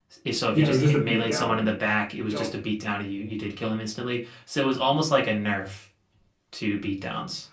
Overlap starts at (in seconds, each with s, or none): 0.5 s